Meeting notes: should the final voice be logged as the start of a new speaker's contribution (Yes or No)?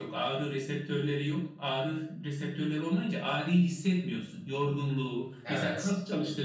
No